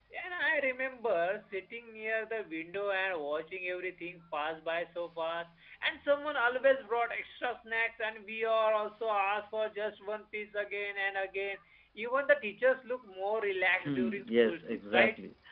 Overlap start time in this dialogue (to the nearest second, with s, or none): 14 s